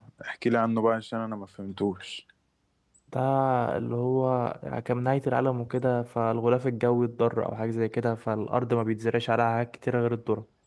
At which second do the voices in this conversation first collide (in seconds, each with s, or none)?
none